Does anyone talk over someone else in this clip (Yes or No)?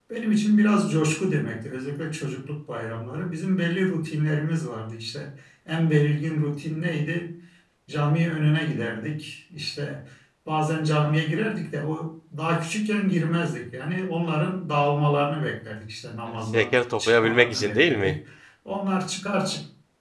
Yes